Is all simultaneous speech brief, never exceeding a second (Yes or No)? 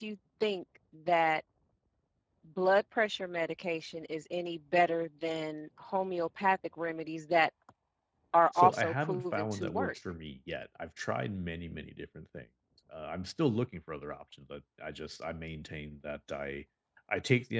No